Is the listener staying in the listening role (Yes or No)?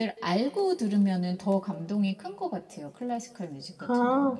No